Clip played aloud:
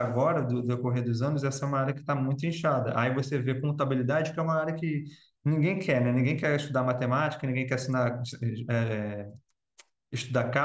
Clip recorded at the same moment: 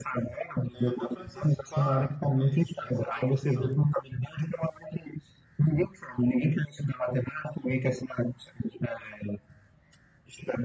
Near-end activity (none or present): present